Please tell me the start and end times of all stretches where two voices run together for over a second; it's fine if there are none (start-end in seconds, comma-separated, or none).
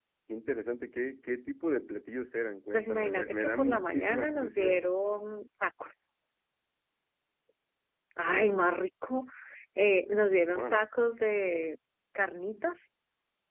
2.7-4.8